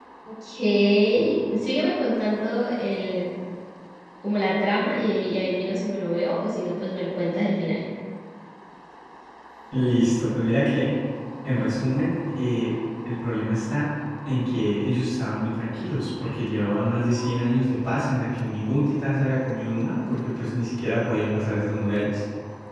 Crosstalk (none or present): none